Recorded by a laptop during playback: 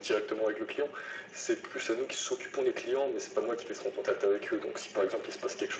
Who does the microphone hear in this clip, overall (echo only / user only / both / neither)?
echo only